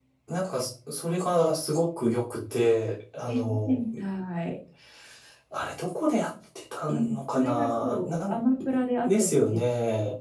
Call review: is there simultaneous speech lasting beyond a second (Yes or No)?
Yes